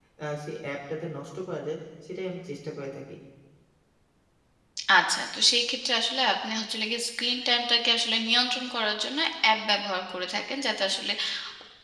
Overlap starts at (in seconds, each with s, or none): none